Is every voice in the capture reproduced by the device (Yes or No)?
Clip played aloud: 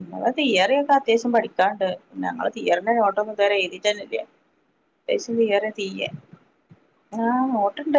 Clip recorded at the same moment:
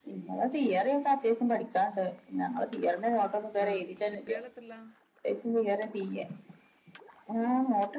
No